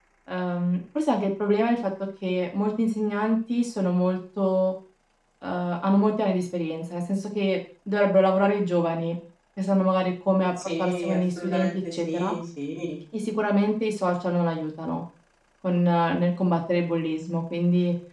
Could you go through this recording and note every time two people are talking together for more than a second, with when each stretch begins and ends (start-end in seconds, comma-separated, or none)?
10.8-12.3